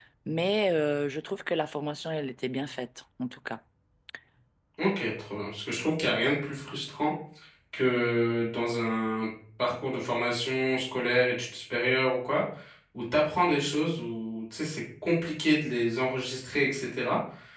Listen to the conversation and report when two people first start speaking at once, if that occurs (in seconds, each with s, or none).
none